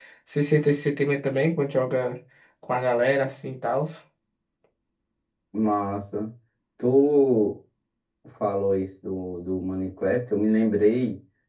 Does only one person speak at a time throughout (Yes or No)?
Yes